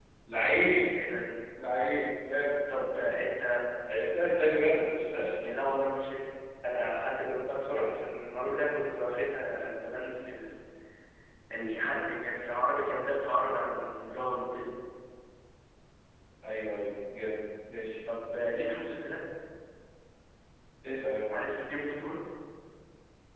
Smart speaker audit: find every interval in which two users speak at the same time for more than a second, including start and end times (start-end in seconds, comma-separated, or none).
none